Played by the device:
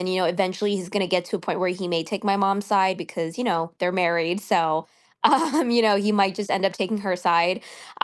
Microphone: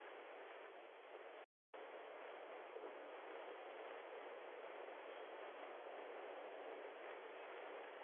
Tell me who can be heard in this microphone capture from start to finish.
neither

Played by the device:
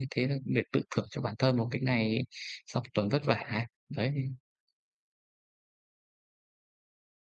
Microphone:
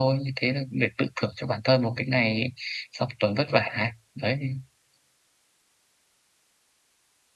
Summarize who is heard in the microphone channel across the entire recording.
echo only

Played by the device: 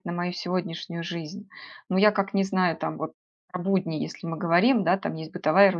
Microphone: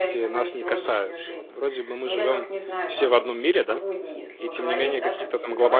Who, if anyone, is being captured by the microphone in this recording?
both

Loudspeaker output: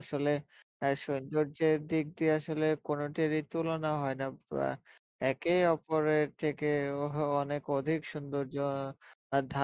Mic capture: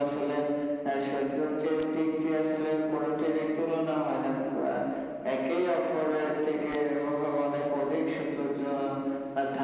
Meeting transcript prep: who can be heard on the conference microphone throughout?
echo only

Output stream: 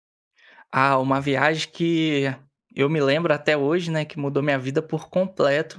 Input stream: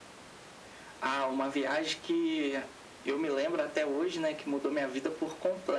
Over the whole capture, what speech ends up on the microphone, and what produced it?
echo only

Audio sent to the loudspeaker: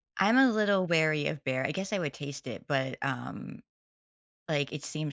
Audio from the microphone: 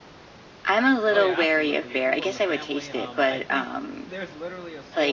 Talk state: both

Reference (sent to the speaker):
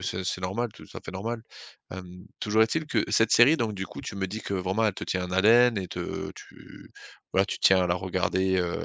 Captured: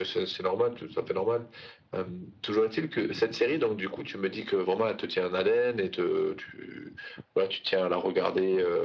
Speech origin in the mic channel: echo only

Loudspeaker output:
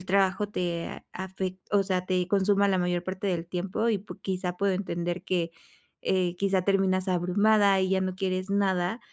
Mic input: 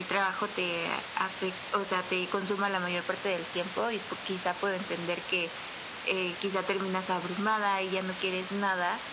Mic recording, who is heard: echo only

